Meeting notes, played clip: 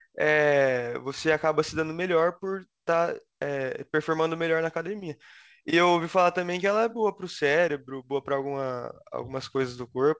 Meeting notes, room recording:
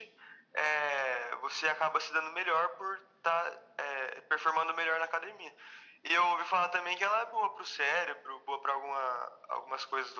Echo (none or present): present